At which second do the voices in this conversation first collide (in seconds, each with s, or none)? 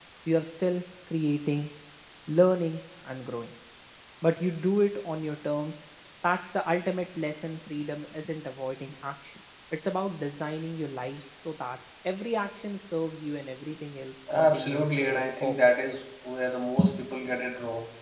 14.3 s